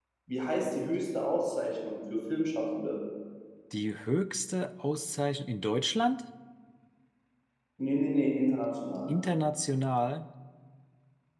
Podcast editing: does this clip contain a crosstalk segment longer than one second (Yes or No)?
No